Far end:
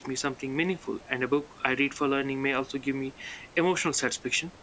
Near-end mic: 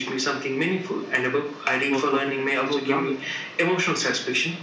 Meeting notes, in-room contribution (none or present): present